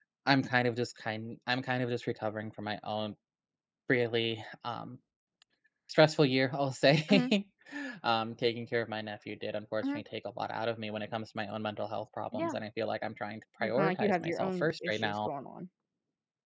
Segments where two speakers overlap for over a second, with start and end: 13.6-15.3

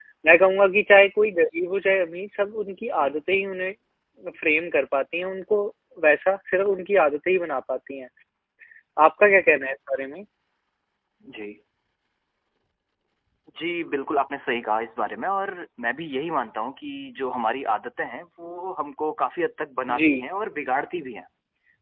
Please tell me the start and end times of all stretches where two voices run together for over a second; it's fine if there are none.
none

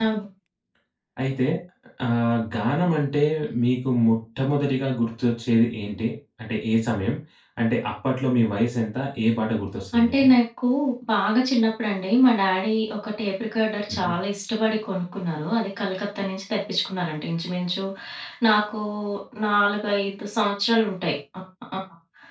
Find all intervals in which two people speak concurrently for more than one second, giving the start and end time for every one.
none

